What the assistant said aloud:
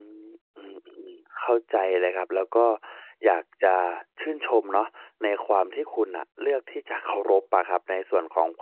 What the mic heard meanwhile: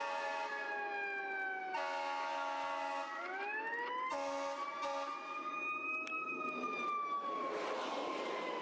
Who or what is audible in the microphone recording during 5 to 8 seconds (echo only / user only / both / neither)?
neither